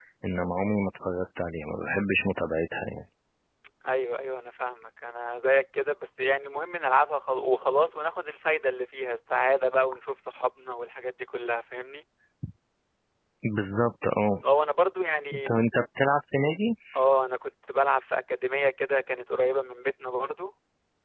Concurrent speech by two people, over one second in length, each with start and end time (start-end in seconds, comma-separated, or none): none